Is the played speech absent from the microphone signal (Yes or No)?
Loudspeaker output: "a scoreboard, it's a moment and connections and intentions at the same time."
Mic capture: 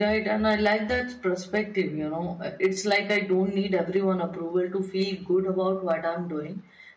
Yes